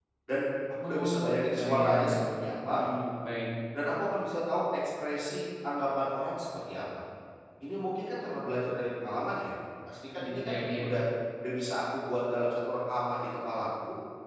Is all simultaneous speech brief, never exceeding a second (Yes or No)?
No